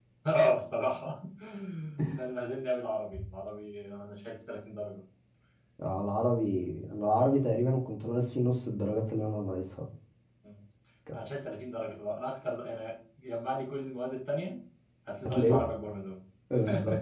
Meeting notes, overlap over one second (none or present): none